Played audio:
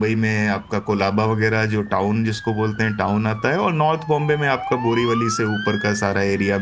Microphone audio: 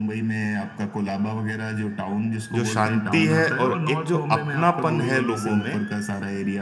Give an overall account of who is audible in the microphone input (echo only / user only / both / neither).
both